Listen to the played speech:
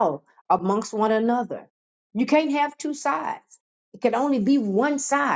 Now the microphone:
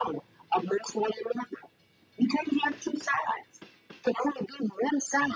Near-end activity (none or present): none